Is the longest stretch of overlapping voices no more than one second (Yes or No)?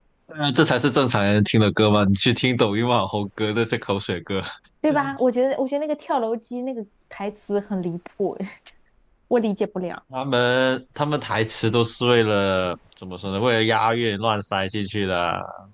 Yes